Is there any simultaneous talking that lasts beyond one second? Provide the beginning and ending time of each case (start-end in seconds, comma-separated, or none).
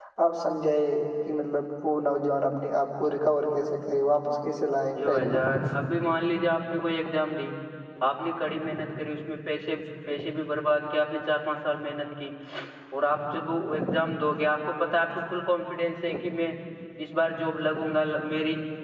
none